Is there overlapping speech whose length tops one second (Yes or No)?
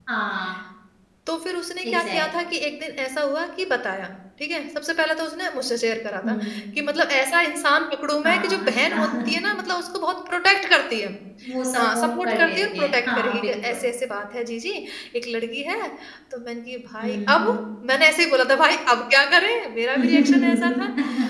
Yes